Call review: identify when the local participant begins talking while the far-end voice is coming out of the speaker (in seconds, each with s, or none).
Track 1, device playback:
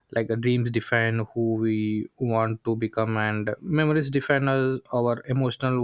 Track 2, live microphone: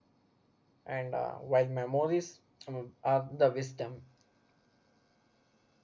0.8 s